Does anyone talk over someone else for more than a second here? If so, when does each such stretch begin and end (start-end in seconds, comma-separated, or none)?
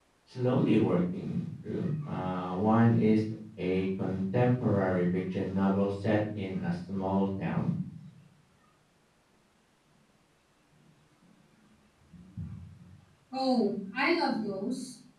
none